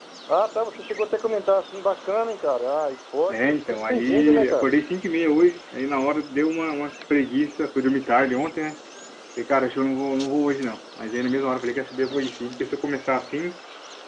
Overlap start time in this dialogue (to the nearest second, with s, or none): 3 s